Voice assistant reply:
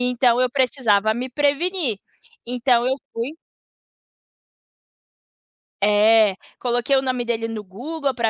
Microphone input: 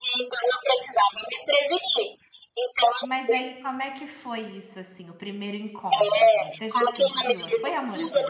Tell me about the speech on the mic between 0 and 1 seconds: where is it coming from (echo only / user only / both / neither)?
echo only